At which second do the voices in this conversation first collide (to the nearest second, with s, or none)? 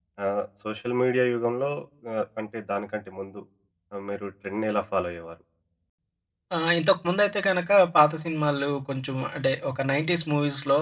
none